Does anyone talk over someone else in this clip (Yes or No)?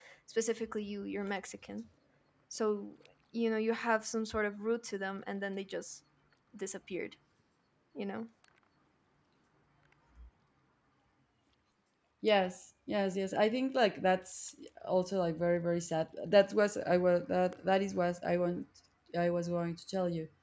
No